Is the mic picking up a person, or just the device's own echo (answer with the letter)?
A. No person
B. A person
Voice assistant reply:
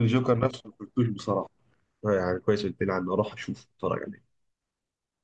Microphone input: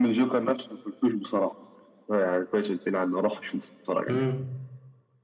B